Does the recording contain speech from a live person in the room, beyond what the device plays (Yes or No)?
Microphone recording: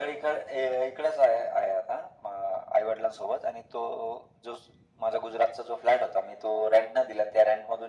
No